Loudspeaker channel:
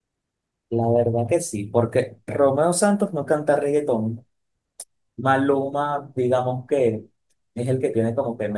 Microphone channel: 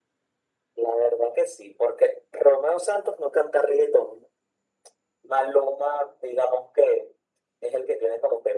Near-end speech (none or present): none